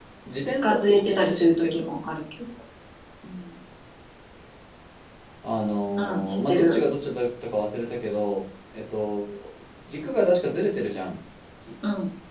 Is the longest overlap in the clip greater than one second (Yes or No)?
Yes